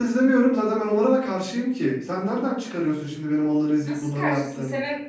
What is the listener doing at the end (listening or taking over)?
taking over